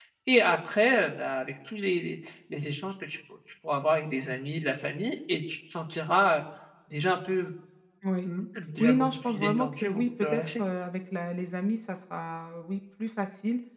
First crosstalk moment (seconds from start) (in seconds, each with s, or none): 8.8 s